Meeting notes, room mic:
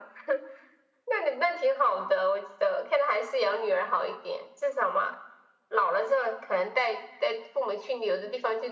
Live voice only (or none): none